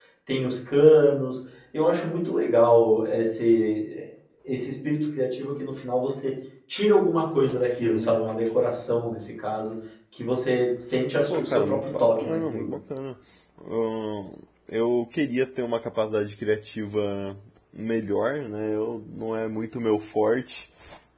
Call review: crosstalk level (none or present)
present